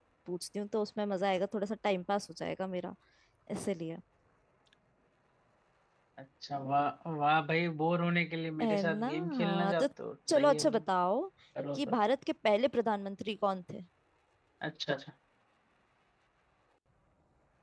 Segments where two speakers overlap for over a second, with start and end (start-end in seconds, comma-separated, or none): 8.6-9.9